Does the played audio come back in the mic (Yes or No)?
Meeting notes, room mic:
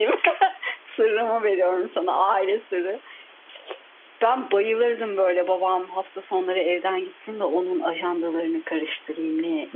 No